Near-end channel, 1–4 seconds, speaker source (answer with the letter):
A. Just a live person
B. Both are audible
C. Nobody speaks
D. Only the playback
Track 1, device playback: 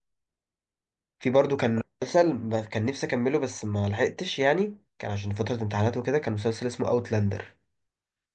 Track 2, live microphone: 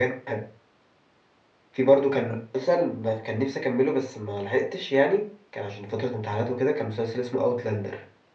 D